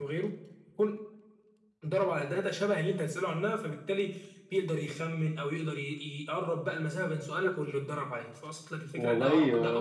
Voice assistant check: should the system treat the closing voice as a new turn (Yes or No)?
Yes